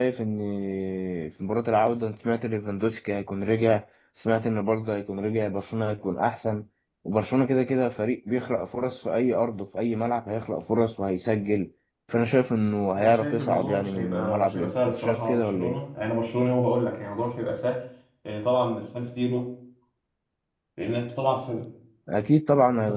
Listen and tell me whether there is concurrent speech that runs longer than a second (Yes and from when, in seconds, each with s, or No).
Yes, from 13.0 s